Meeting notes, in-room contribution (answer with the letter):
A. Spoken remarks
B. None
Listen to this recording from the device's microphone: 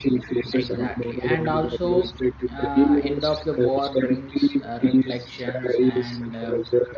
A